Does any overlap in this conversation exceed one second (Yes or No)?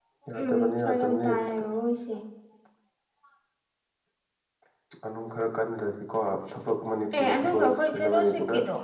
Yes